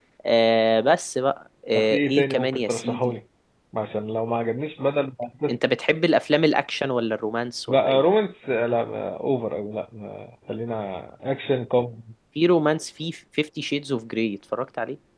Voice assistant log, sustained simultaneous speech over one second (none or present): present